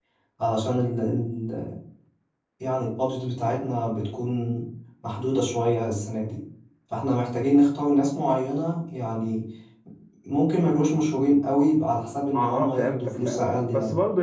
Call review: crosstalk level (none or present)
present